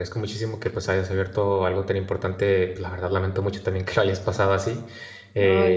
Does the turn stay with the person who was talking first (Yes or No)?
Yes